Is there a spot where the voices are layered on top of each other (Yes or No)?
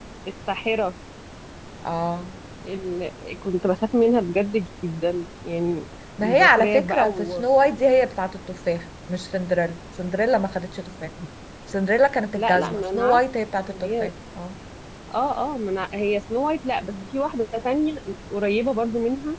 Yes